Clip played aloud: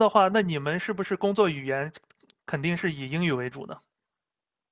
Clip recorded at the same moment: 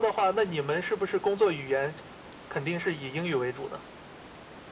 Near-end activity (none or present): none